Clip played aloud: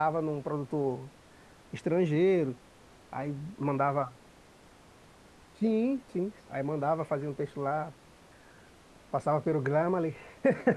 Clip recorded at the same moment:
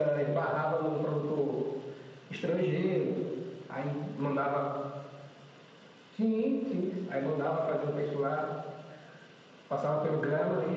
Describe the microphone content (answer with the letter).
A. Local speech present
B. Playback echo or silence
B